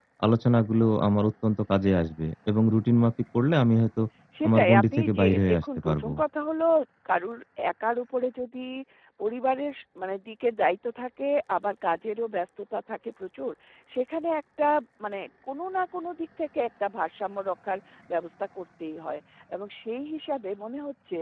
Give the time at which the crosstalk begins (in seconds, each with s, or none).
4.5 s